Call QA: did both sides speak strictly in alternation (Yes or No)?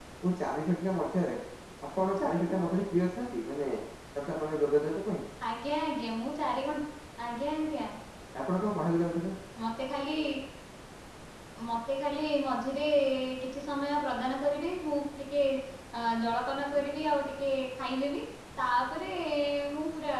Yes